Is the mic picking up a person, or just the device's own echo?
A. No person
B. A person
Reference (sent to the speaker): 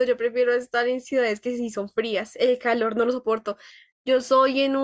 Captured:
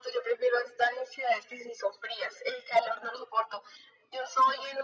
A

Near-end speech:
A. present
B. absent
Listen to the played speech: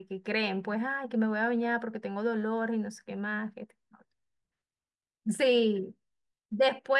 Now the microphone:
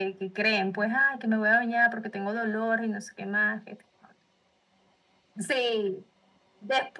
B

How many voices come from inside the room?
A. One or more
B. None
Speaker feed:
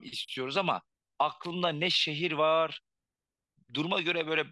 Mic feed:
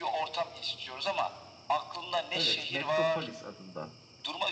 A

